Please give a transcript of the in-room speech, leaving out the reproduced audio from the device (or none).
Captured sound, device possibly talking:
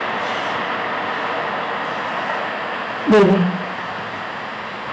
네네.